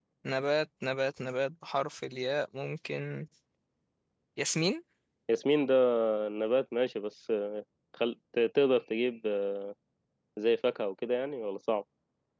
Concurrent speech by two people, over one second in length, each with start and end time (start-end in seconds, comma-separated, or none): none